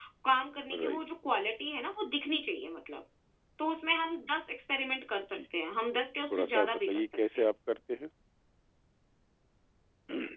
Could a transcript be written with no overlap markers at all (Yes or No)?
No